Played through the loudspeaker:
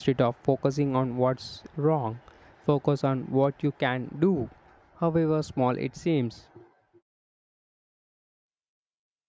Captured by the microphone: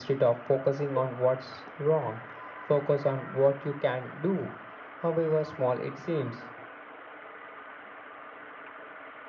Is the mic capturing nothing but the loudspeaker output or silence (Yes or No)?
Yes